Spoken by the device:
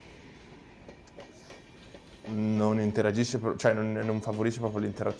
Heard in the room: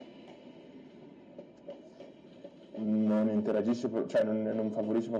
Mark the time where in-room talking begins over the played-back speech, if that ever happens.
none

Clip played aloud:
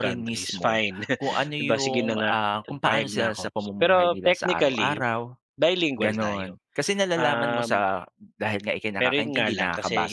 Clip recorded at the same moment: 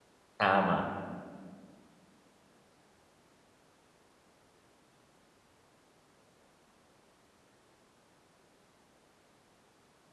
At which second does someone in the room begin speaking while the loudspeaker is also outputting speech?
0 s

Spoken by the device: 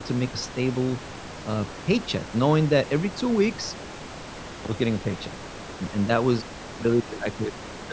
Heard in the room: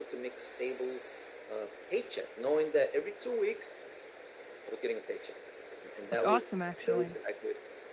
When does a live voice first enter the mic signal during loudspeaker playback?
6 s

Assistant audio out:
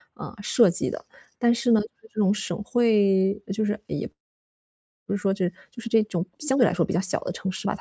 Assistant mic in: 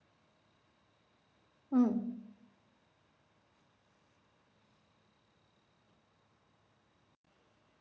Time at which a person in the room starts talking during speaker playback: 2 s

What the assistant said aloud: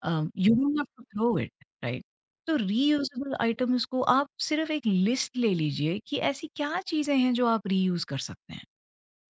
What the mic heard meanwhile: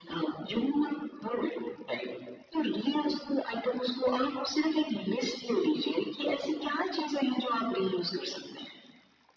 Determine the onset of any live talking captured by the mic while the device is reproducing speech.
none

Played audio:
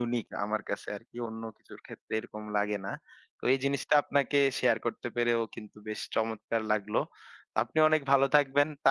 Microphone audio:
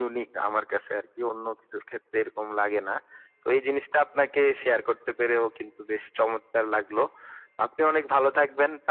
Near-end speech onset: none

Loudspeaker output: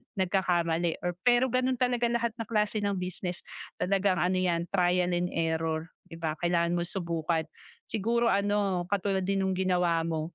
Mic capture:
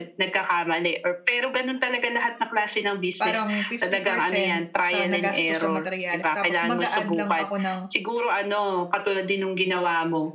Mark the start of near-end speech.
3 s

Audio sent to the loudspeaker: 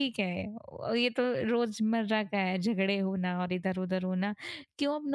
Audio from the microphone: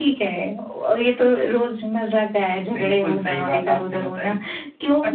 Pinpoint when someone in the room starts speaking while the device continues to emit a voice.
3 s

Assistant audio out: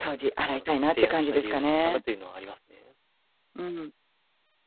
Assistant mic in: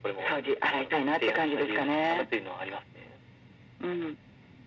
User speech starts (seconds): none

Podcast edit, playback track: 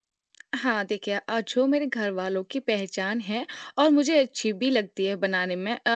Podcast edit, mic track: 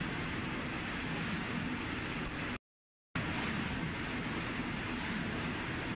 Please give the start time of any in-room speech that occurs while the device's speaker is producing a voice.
none

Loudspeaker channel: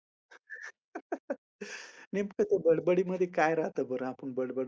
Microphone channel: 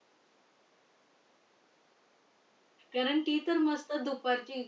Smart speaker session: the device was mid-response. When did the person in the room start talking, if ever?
3 s

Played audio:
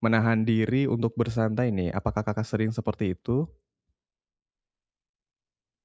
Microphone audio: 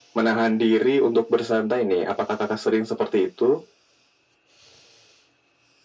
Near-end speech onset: none

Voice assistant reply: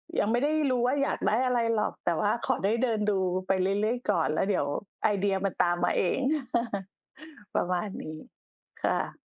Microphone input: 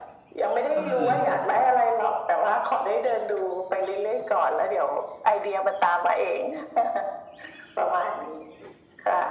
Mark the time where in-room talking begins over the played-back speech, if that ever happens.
1 s

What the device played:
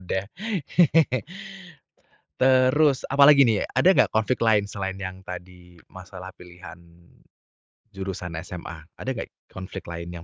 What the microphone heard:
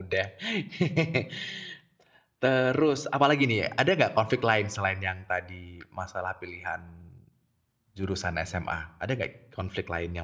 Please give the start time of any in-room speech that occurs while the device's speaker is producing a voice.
none

